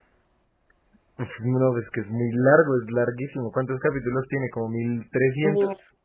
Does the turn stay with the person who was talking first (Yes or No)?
No